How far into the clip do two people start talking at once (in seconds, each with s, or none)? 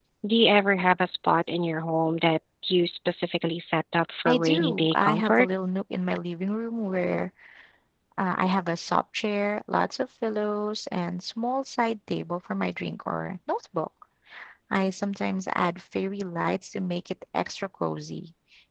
4.2 s